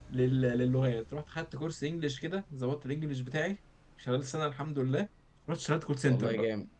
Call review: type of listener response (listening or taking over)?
taking over